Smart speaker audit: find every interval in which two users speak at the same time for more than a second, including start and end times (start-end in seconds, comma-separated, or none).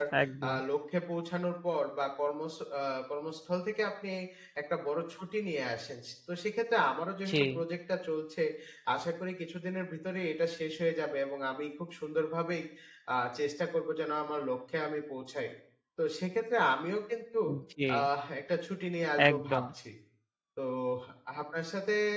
none